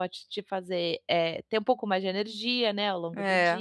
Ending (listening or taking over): taking over